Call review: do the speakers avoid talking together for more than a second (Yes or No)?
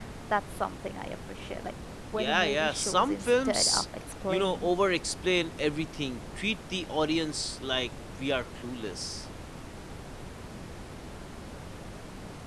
No